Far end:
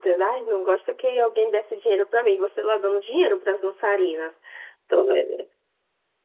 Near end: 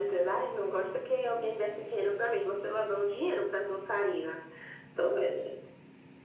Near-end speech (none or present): none